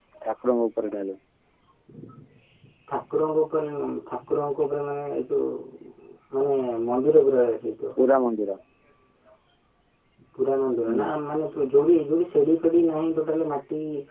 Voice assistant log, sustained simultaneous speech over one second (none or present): none